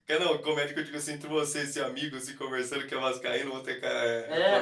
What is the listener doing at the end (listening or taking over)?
taking over